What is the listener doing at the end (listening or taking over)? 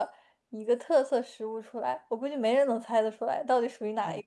taking over